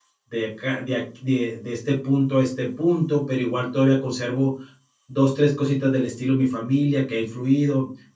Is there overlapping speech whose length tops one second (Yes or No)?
No